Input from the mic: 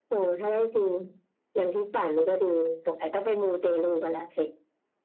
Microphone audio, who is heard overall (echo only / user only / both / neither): echo only